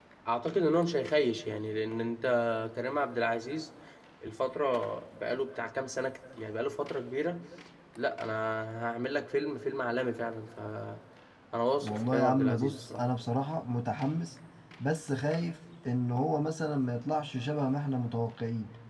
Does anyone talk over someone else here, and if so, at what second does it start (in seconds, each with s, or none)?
11.8 s